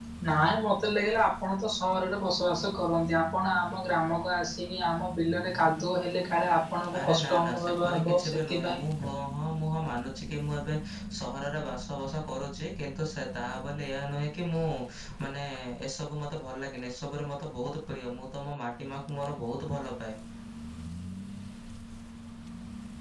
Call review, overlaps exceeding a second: present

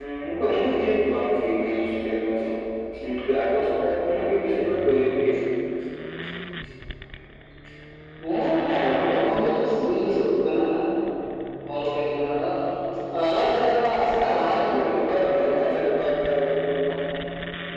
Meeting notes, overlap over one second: present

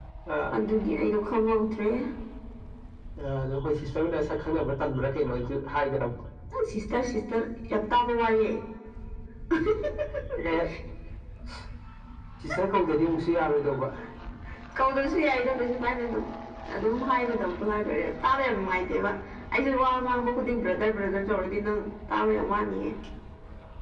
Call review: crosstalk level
none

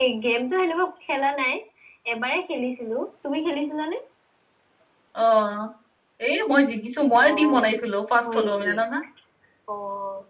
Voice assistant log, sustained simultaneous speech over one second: none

